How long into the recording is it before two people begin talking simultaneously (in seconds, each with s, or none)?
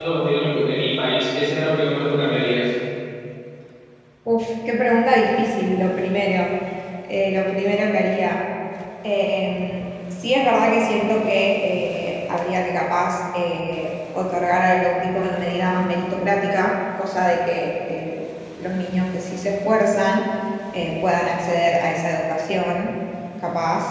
none